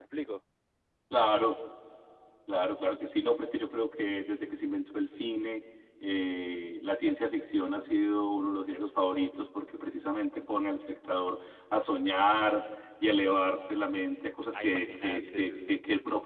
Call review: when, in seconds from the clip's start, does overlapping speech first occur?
15 s

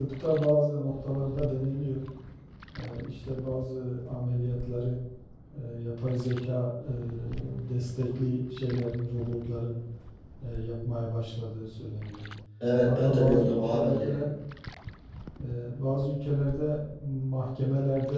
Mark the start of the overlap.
13 s

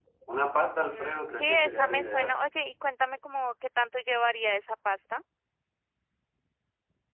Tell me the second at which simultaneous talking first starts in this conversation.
1 s

